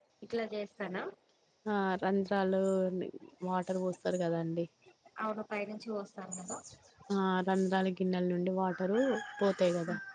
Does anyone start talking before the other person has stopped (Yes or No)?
No